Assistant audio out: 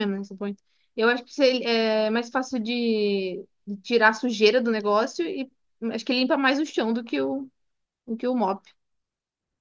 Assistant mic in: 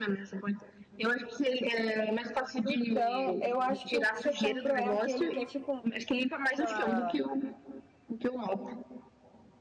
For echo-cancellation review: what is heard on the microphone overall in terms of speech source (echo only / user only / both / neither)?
both